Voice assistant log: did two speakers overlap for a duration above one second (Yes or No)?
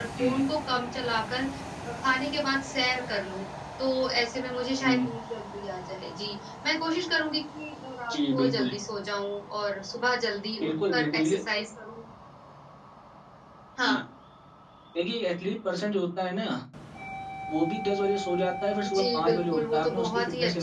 Yes